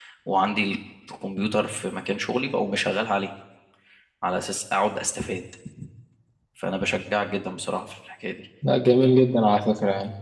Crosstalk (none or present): none